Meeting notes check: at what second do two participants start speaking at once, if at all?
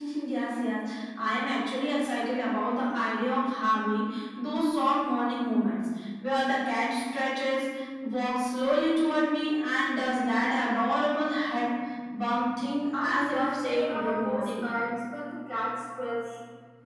13 s

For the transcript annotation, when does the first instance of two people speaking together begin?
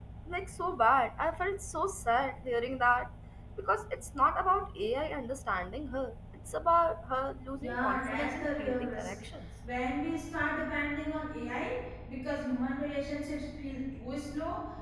8 s

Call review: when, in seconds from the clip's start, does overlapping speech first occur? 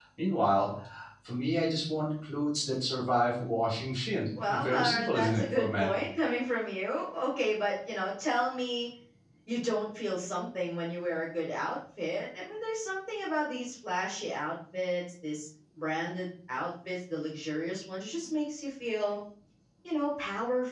4 s

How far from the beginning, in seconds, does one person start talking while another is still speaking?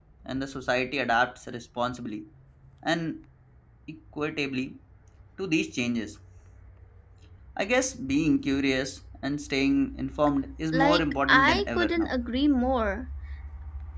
11 s

